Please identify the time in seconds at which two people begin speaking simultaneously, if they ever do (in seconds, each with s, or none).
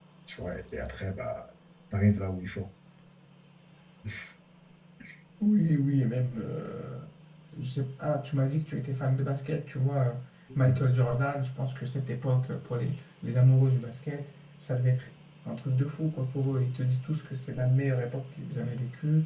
none